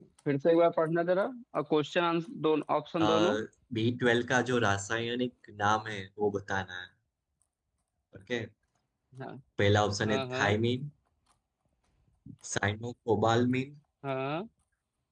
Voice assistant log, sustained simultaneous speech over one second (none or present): none